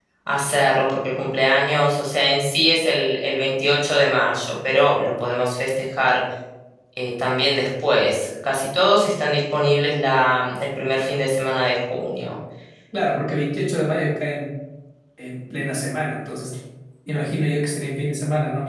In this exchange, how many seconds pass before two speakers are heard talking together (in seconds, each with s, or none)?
none